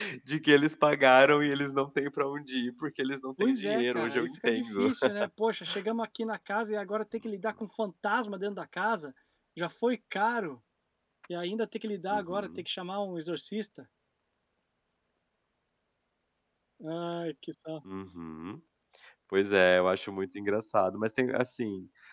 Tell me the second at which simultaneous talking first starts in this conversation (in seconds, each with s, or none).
3.4 s